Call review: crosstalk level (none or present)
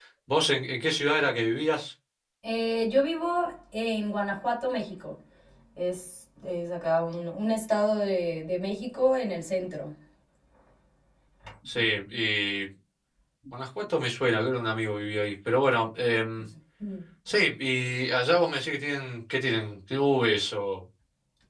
none